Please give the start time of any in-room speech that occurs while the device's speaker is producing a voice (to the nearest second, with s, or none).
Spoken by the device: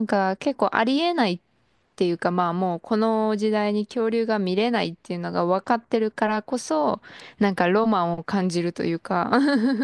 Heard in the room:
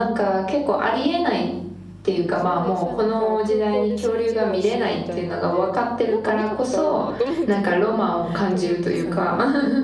2 s